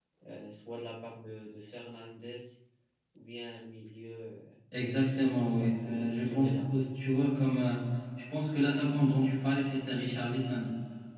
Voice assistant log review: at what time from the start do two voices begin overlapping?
5.3 s

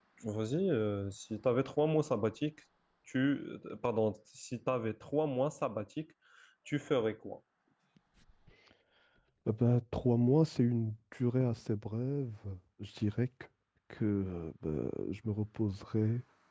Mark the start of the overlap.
none

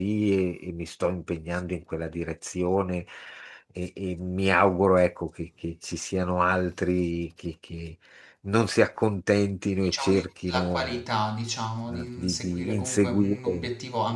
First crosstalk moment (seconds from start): 9.8 s

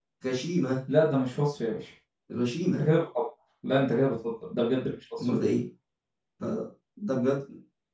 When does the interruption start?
none

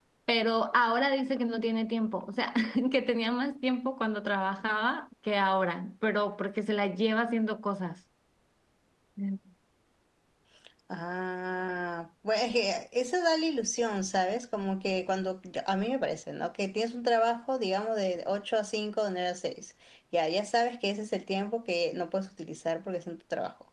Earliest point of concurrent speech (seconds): none

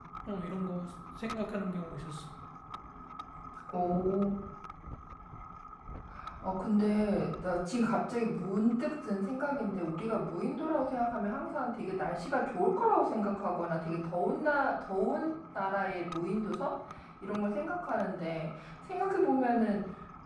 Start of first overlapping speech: none

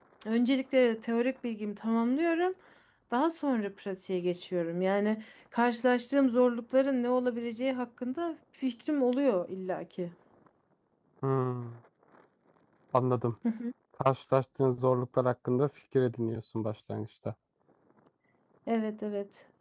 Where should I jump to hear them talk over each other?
none

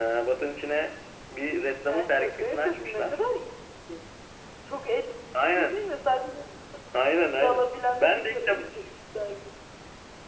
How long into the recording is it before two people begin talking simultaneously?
1.9 s

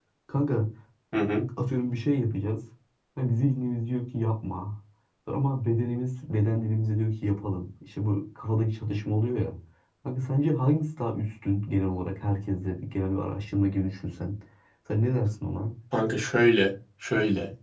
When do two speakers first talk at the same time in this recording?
none

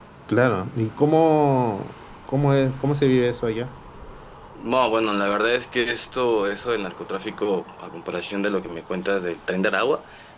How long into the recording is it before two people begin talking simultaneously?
none

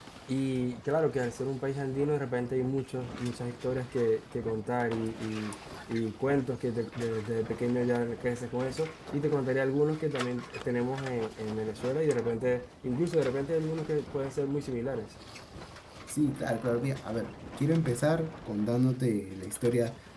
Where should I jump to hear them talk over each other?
none

